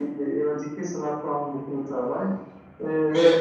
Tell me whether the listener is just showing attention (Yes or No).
Yes